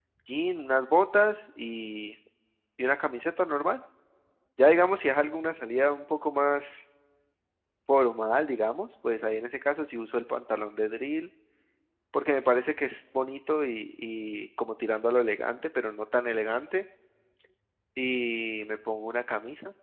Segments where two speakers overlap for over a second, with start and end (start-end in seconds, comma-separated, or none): none